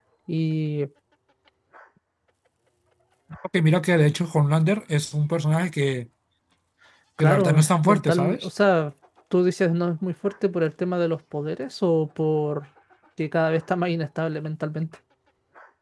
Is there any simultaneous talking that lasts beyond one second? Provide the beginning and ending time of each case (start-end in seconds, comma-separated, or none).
7.2-8.5